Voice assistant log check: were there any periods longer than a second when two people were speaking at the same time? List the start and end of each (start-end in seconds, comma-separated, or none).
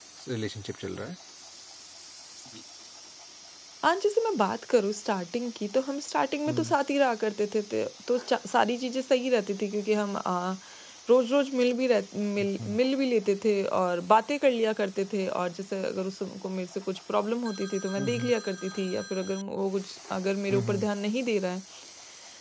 none